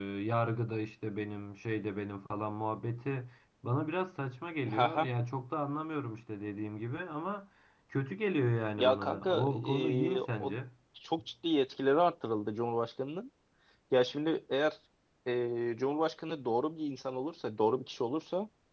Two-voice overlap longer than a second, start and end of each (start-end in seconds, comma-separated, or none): 8.8-10.5